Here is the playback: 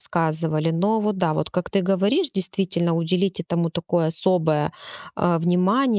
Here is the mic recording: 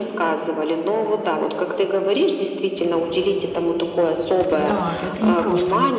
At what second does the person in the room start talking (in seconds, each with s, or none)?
4.5 s